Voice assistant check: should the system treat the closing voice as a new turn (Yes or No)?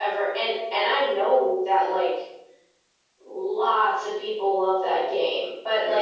No